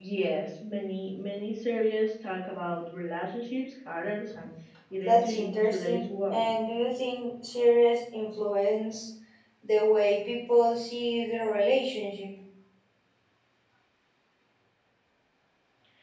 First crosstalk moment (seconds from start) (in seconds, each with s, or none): 5.0 s